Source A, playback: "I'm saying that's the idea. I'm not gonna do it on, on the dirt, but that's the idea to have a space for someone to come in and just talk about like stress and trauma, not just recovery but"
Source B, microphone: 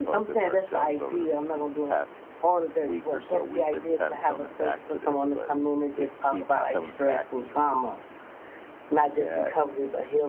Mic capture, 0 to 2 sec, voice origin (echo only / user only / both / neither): both